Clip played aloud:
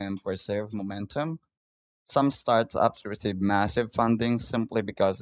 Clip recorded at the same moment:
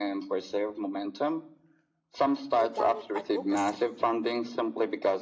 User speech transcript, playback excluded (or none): organic advocacy,